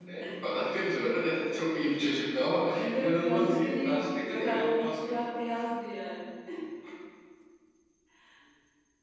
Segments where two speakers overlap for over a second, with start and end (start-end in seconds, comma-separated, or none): 2.7-5.1